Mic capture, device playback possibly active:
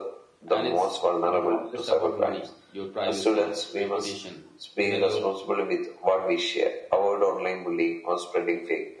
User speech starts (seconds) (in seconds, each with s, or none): 0.5 s